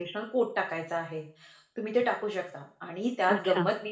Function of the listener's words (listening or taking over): listening